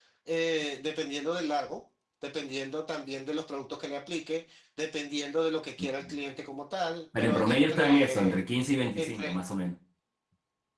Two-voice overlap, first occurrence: 7 s

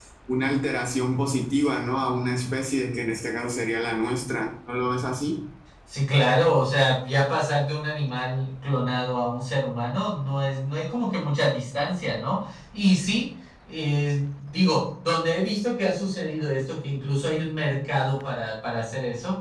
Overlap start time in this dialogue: none

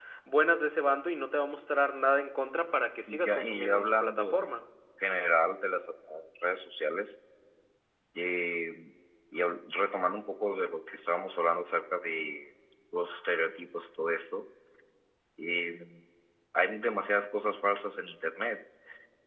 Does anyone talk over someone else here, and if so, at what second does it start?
3 s

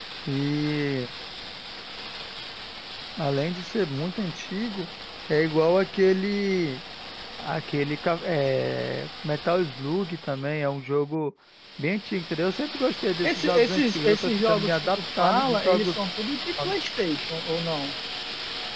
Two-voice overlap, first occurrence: 13 s

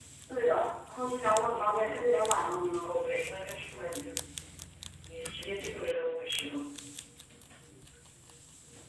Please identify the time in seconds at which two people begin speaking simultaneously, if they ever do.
2 s

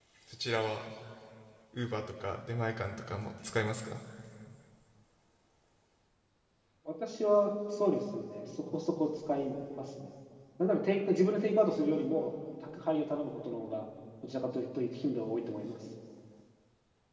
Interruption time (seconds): none

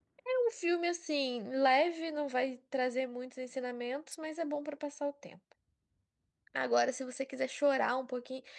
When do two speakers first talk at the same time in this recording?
none

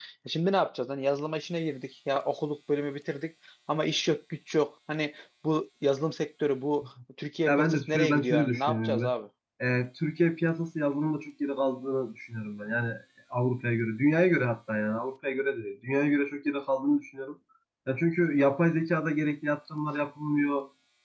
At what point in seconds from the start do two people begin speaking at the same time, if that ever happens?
7 s

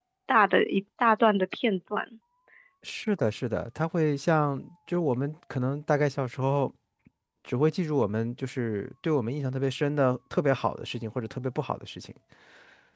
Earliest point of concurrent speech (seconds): none

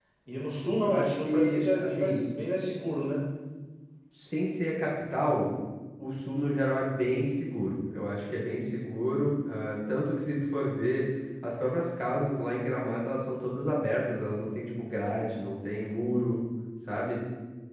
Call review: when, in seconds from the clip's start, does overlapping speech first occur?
1 s

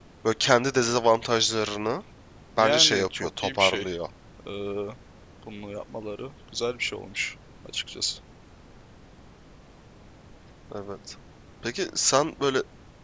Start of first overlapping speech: 3 s

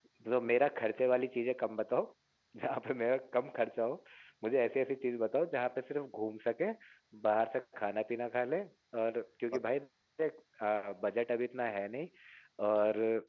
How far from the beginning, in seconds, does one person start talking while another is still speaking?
none

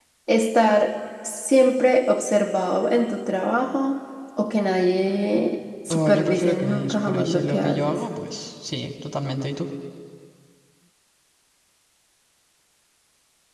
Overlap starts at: 6 s

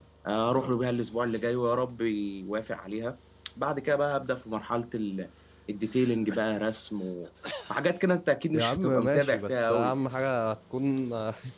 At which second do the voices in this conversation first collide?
9 s

